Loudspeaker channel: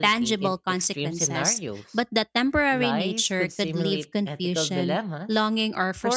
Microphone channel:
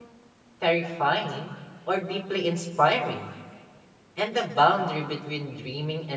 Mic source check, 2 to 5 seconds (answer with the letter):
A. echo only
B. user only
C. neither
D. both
B